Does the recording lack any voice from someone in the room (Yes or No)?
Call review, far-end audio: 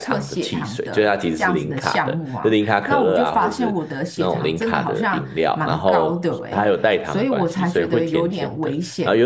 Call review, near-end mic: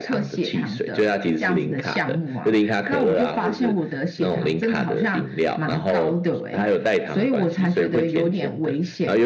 Yes